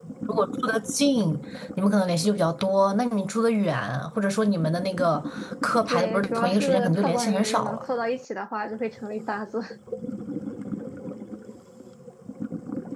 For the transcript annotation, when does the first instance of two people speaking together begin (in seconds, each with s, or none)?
5.8 s